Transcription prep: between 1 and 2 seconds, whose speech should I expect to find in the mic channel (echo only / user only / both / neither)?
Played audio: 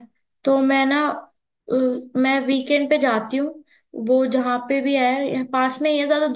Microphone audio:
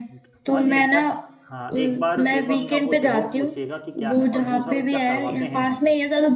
both